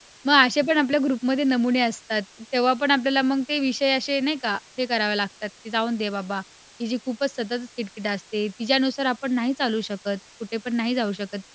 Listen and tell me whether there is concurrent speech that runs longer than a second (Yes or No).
No